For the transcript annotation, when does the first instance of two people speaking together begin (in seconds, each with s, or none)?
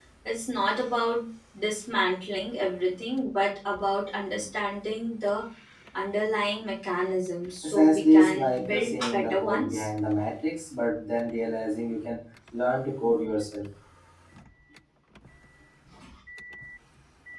7.6 s